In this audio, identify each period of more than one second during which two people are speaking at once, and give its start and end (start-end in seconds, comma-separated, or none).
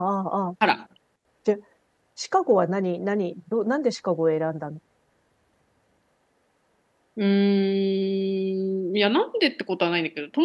none